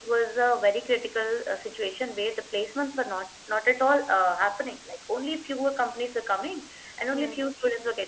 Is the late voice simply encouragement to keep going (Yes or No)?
Yes